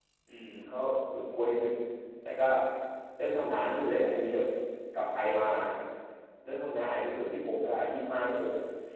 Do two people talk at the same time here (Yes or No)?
No